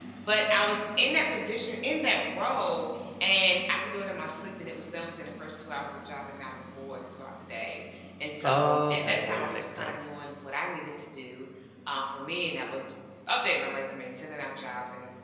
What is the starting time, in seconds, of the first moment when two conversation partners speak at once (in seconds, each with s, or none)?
8.4 s